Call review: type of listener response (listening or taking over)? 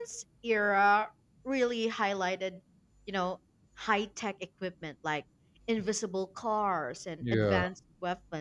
listening